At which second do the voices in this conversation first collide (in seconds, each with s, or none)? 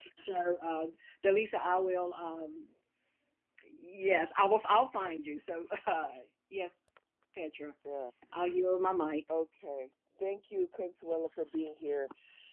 none